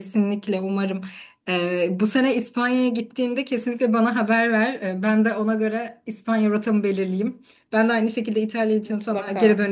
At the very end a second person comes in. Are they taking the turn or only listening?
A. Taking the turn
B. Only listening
B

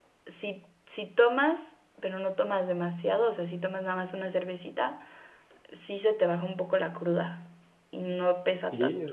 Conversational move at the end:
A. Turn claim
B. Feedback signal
A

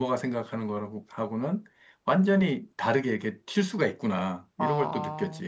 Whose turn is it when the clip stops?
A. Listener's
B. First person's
A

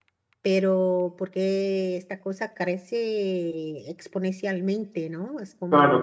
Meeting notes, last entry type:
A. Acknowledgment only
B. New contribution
B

